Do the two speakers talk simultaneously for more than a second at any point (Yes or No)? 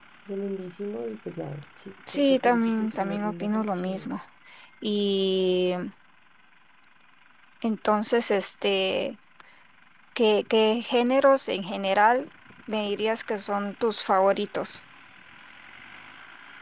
Yes